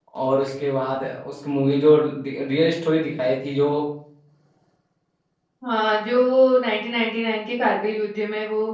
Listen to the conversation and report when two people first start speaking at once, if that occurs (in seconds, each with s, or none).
none